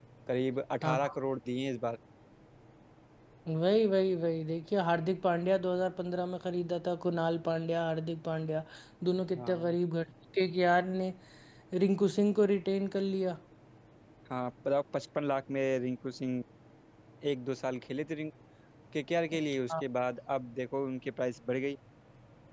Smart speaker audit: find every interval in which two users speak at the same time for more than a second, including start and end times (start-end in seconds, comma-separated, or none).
none